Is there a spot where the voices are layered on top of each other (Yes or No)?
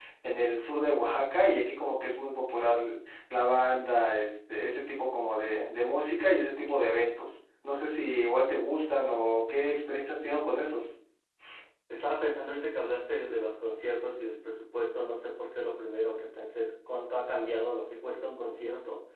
No